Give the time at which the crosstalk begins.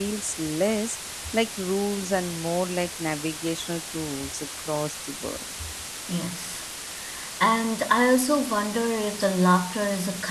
none

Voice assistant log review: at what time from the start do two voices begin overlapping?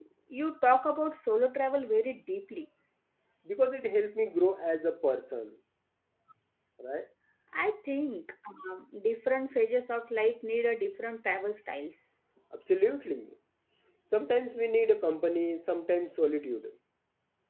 none

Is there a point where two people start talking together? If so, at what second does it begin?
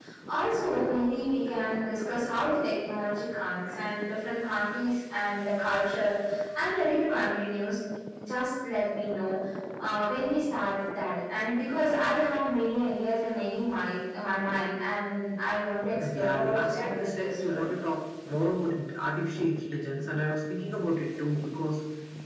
16 s

